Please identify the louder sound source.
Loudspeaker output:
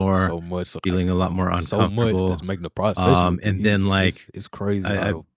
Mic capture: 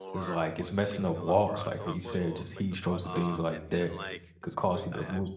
user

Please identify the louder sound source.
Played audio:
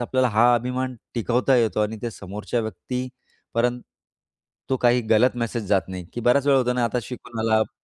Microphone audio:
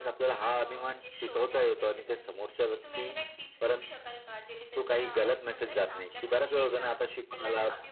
echo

